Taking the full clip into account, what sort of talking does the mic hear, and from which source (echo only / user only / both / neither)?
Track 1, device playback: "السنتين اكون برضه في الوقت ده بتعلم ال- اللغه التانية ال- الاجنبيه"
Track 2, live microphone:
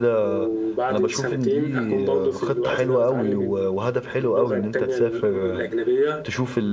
both